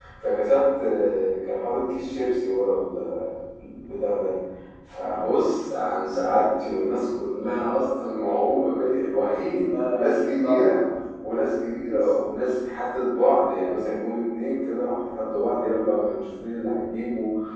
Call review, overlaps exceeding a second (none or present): present